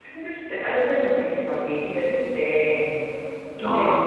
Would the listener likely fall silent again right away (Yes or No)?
Yes